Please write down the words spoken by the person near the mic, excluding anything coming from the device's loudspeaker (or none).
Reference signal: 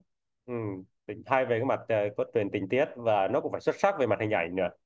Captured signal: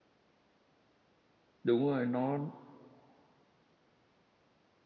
đúng rồi nó